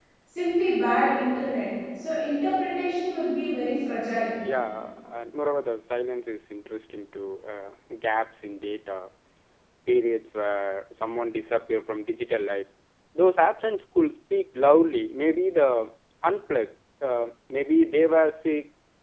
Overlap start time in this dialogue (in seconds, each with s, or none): none